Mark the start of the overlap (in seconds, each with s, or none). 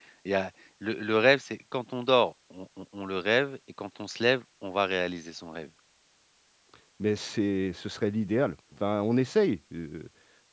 none